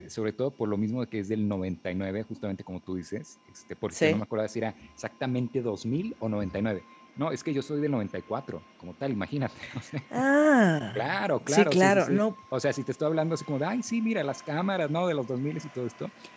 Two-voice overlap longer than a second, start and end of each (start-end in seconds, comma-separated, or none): 11.0-12.2